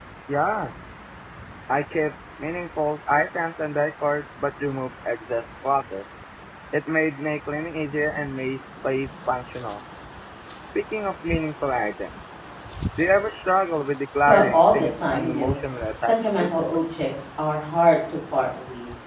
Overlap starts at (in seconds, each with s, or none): 14.3 s